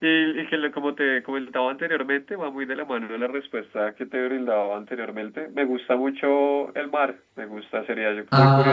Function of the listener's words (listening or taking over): listening